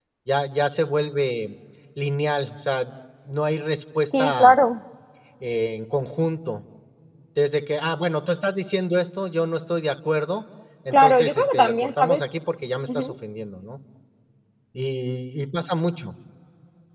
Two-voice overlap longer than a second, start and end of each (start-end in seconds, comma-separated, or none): 10.9-12.2